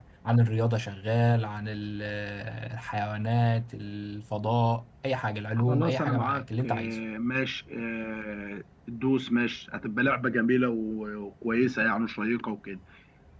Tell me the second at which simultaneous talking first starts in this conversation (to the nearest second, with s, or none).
6 s